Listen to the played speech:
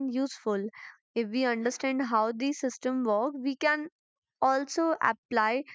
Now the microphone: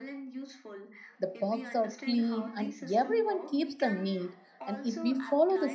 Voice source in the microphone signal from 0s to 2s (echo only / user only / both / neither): both